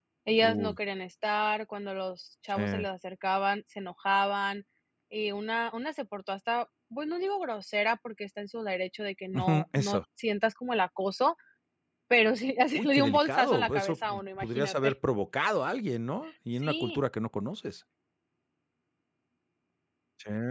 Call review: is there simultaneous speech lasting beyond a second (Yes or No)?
Yes